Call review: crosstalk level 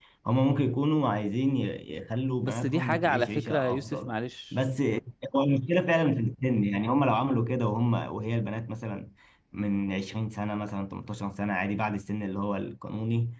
present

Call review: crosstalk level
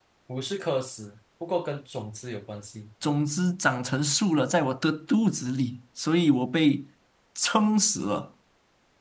none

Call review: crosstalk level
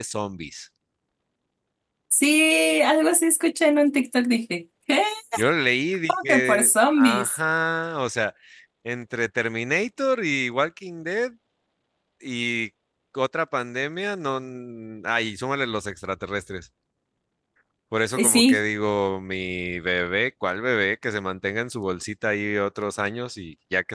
present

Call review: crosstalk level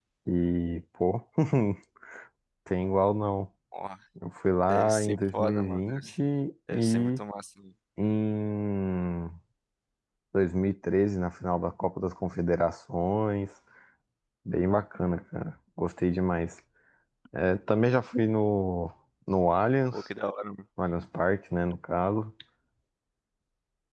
present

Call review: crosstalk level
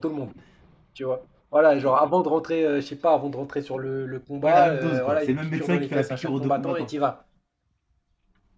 present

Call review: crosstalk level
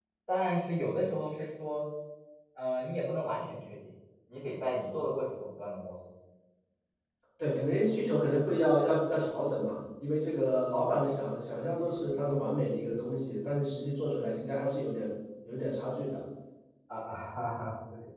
none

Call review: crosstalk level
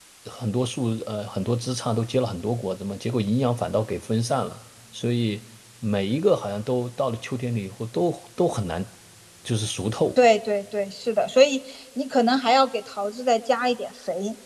none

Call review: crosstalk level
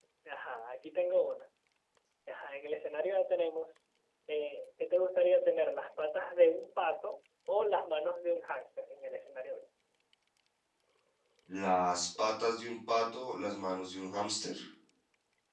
none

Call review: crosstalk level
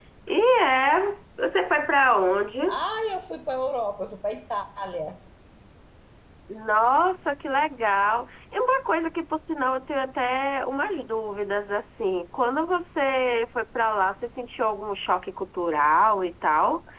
none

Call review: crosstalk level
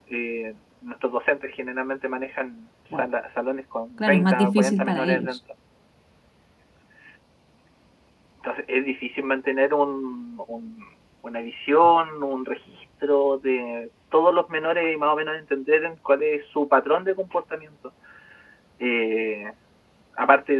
present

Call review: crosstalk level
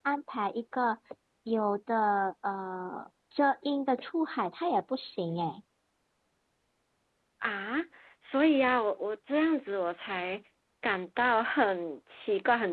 none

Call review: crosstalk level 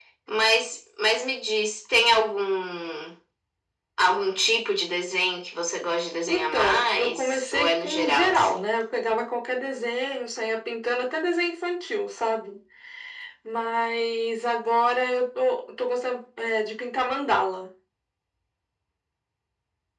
present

